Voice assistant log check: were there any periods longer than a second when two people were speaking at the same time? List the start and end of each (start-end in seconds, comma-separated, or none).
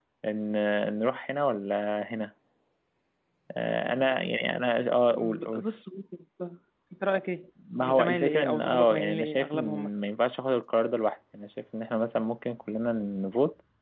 7.9-9.9